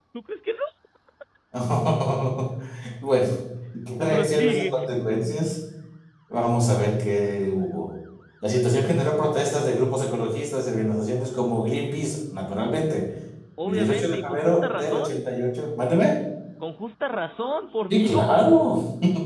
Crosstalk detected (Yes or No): Yes